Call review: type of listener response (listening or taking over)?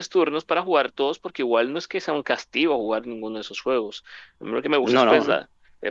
listening